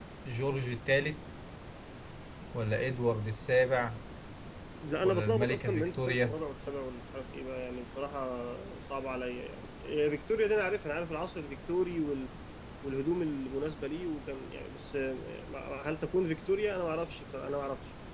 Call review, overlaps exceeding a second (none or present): present